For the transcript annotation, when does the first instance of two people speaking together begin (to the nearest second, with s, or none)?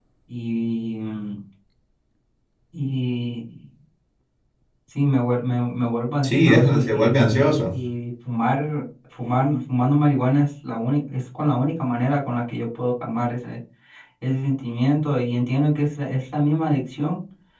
6 s